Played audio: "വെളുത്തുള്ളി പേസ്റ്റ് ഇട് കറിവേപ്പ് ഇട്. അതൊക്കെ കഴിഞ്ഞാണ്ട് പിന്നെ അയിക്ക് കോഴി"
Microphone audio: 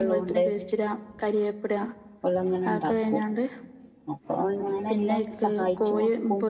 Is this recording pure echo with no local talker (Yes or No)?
No